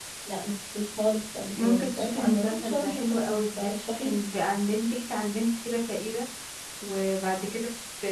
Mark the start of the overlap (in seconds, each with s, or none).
1.6 s